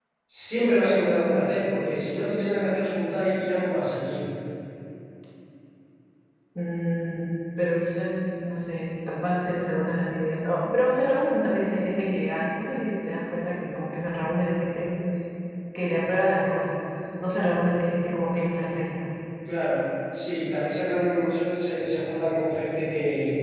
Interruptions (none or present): none